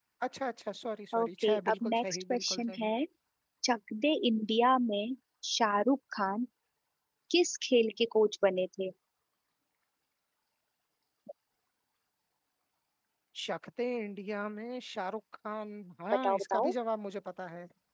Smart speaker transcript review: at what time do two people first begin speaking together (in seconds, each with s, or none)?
1.2 s